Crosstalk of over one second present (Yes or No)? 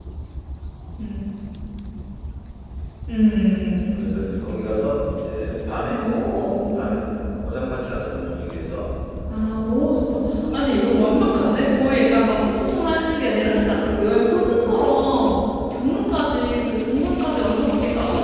Yes